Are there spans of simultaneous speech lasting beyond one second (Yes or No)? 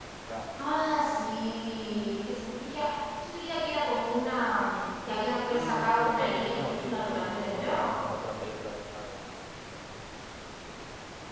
Yes